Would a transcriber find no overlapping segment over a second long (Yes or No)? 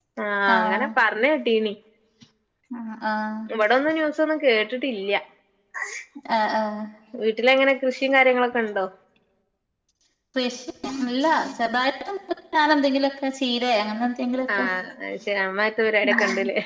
Yes